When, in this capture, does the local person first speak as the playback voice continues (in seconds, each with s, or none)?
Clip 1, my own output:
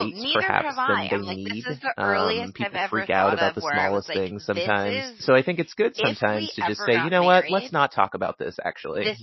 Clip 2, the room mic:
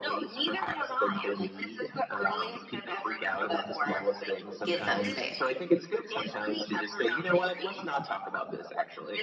4.6 s